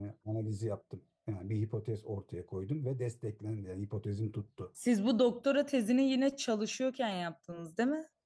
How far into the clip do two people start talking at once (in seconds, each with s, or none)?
none